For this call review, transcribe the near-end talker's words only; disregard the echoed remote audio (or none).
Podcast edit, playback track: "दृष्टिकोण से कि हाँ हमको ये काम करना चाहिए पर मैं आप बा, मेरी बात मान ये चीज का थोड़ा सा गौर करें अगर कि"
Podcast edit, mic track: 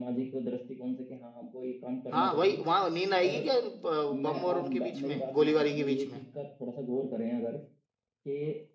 हाँ वही वहां नींद आएगी क्या इन, अ, बम और उनके बीच में गोलीबारी के बीच में